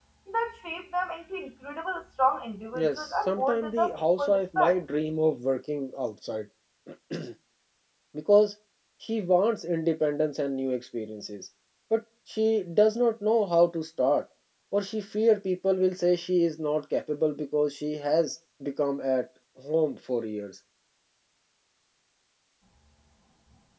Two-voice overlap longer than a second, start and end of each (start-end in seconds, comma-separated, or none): 2.8-4.8